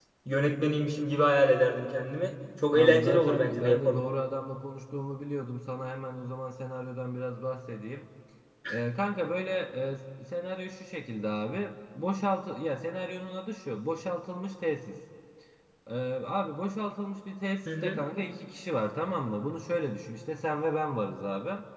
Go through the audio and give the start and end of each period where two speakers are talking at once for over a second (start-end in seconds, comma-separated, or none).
2.7-4.0